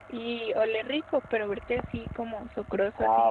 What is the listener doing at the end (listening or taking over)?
taking over